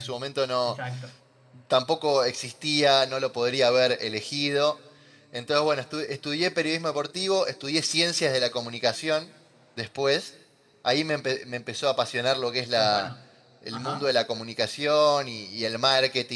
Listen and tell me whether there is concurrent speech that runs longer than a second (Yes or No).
No